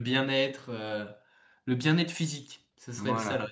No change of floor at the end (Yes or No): No